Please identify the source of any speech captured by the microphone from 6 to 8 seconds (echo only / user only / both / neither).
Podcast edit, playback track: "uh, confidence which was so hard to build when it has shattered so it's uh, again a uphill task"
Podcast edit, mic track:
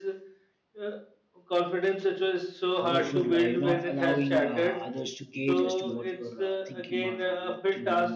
both